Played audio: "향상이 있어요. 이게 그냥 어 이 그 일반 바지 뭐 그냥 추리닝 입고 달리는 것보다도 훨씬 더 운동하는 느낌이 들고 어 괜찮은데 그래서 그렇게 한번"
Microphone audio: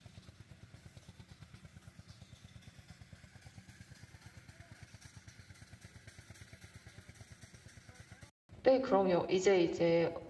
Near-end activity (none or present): present